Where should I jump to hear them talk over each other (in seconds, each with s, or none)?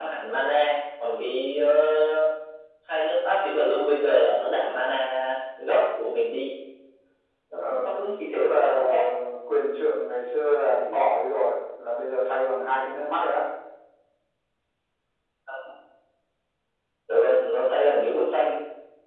7.6 s